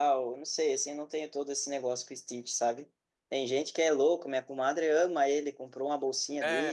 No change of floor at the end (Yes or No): Yes